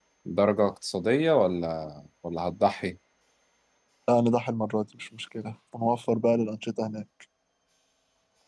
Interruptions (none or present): none